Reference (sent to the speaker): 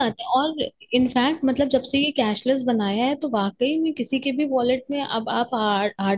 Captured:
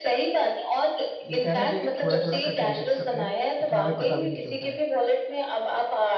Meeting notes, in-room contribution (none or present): present